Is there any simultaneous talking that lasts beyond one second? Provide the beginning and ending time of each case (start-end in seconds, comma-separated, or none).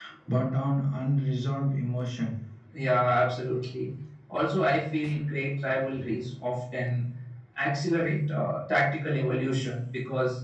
none